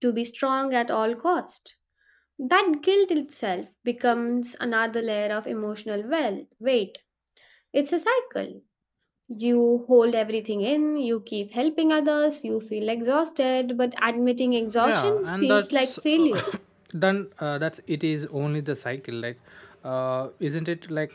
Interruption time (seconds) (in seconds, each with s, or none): 14.8 s